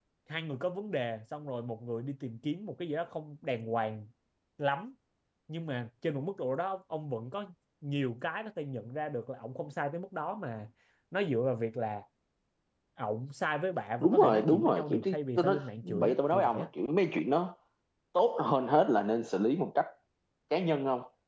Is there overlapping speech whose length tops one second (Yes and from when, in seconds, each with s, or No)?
Yes, from 14.0 s